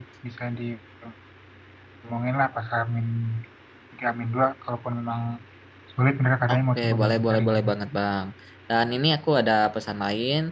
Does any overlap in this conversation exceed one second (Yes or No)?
Yes